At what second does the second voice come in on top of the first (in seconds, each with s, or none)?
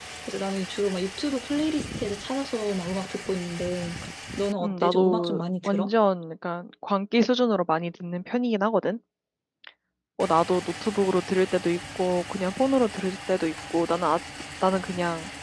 4.6 s